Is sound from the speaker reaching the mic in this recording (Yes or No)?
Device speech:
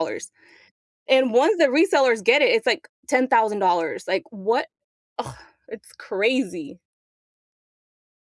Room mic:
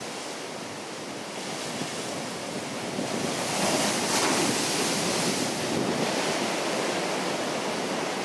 No